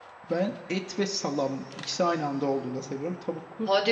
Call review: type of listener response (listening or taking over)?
taking over